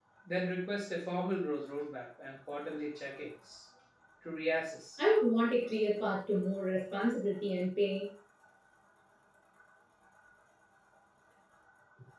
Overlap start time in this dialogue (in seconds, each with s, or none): none